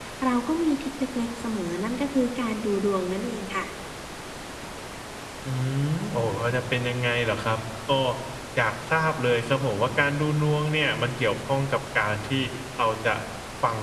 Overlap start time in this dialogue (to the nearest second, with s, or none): none